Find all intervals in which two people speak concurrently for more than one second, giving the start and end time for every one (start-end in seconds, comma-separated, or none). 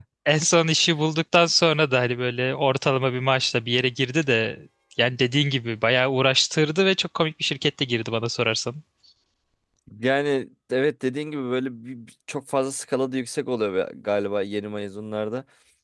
none